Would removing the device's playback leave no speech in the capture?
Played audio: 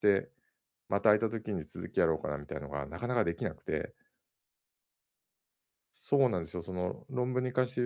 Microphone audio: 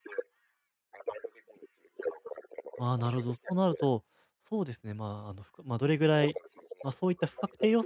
No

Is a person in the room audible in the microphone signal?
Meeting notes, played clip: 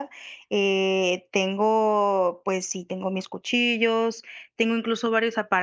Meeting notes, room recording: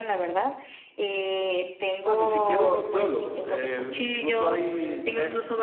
Yes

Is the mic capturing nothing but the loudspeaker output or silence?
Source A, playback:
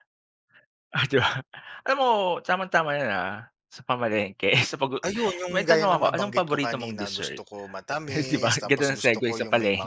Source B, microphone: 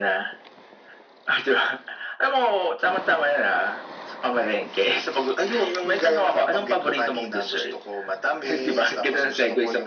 Yes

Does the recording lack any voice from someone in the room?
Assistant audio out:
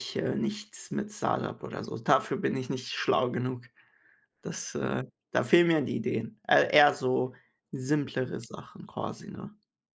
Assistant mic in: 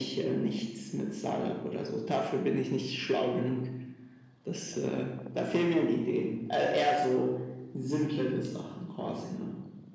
Yes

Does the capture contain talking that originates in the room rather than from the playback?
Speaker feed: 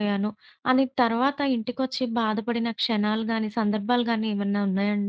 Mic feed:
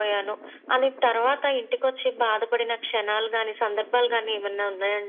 No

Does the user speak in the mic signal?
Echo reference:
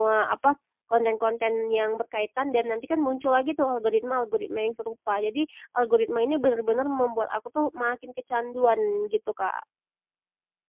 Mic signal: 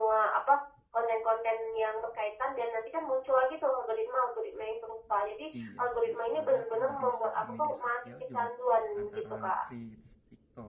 Yes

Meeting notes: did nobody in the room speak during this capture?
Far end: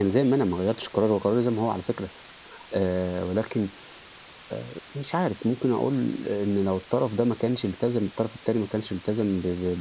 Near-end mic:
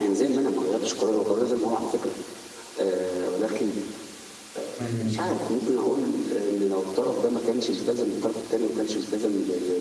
No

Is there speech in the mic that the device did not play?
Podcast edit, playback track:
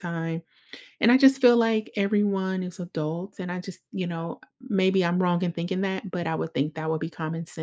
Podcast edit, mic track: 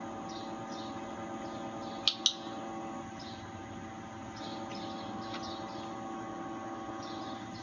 No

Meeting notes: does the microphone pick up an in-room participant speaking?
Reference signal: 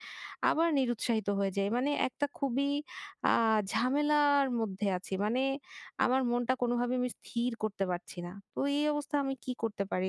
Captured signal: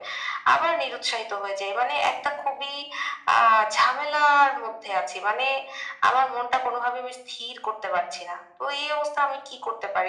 No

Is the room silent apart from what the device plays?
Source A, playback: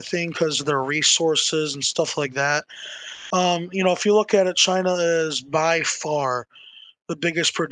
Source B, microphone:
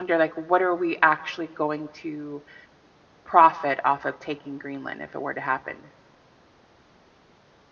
No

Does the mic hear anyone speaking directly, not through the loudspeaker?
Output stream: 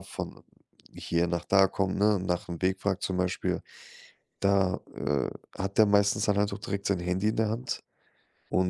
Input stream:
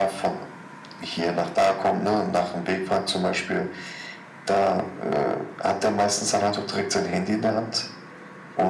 No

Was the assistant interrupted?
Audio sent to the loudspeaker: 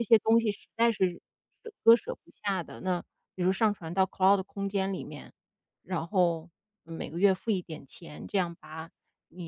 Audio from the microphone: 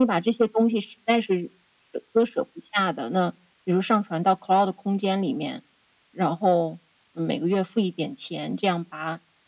No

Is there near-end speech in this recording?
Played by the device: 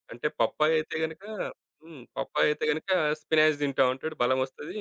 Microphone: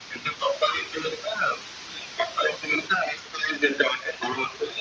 No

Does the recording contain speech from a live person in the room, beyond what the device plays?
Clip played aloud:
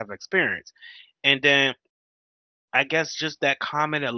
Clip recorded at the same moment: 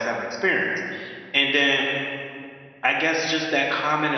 No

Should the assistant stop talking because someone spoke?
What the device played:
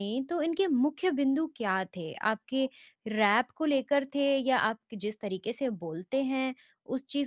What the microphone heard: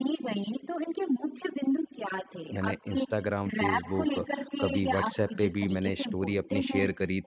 Yes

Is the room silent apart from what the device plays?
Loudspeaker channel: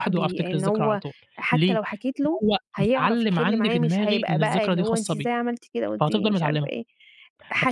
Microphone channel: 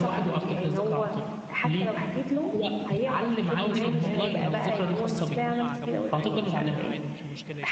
No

